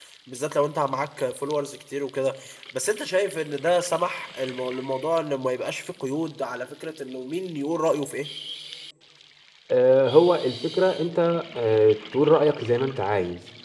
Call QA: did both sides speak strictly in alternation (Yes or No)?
Yes